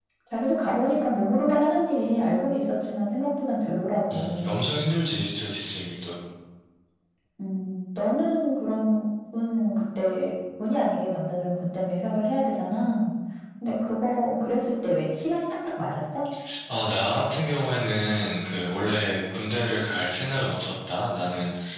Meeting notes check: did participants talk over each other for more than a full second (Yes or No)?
No